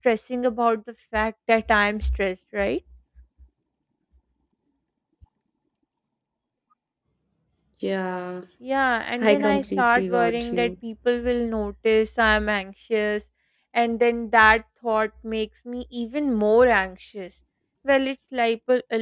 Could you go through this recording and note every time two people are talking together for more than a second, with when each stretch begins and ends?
9.2-10.7

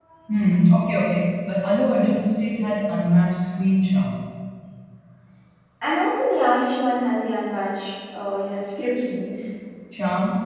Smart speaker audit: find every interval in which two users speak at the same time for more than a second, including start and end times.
none

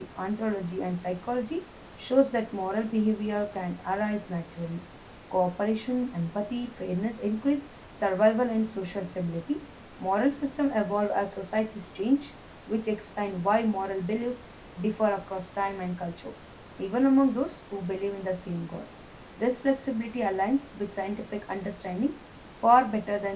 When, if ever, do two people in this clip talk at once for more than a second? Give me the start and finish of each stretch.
none

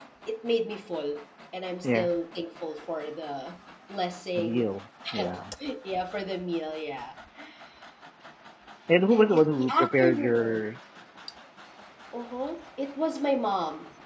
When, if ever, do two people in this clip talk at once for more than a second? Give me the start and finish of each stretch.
9.1-10.7

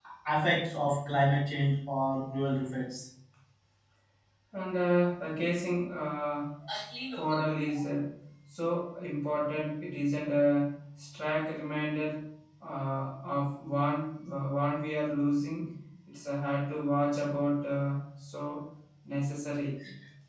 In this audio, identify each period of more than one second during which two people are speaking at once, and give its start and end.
none

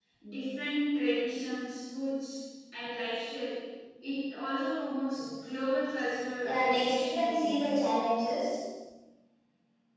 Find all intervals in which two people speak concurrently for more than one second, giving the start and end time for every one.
6.4-7.8

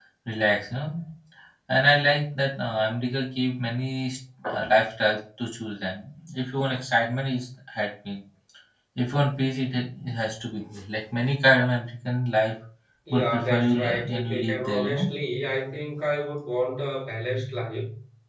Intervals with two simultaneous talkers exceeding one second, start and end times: 13.1-15.1

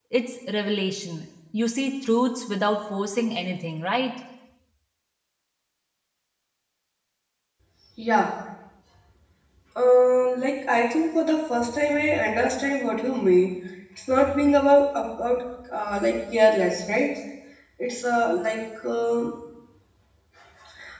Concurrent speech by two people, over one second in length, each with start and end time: none

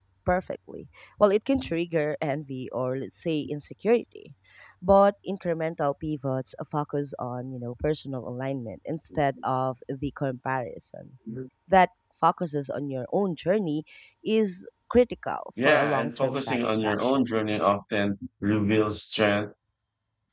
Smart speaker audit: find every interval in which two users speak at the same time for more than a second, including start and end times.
15.7-17.3

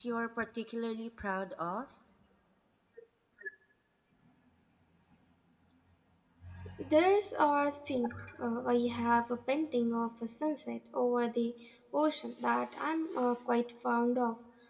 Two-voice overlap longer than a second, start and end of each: none

